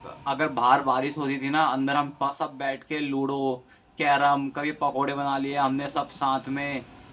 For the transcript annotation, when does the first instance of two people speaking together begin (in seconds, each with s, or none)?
none